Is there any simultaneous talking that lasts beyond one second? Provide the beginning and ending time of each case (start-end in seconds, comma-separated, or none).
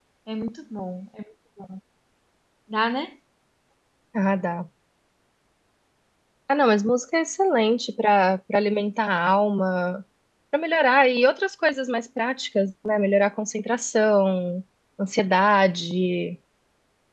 none